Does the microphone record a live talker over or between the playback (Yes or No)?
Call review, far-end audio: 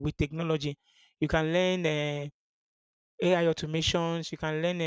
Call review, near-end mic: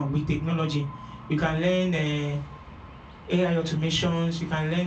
No